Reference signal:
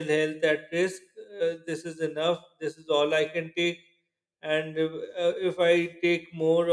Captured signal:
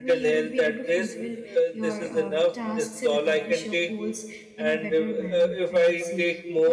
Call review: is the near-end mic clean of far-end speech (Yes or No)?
No